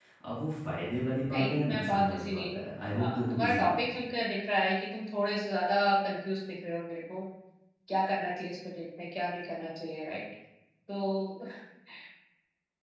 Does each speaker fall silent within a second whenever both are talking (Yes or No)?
No